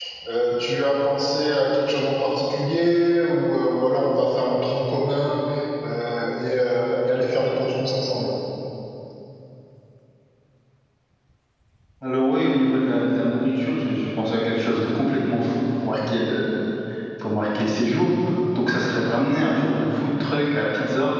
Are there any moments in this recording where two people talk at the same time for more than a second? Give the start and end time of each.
none

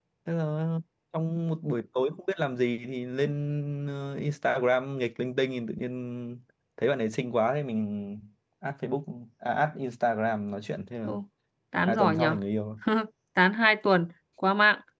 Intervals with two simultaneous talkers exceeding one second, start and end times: none

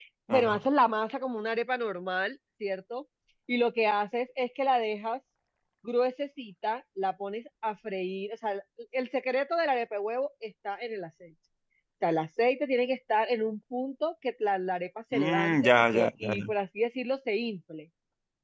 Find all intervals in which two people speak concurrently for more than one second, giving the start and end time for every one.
15.1-16.5

